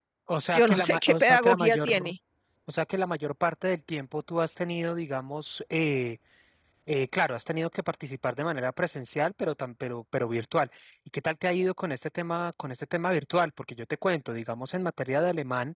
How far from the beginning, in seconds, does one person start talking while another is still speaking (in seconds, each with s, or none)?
0.5 s